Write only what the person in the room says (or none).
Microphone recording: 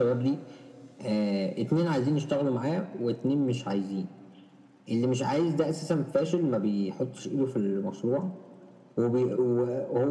none